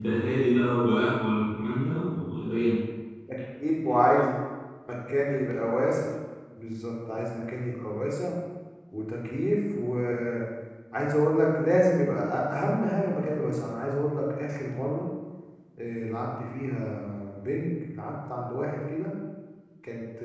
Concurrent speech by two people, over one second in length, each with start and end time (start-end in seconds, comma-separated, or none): none